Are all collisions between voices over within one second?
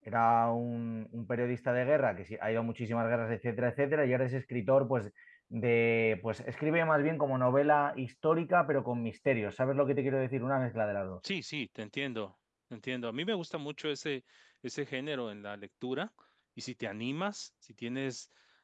Yes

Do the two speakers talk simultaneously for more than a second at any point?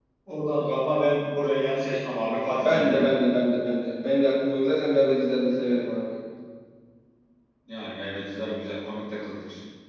No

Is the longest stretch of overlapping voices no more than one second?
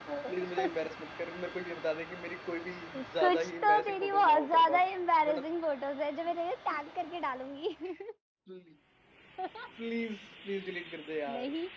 No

